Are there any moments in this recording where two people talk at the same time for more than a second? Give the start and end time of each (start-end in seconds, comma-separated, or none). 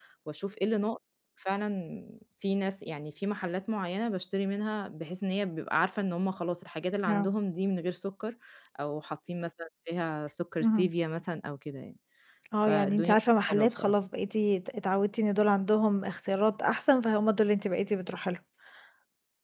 12.7-13.9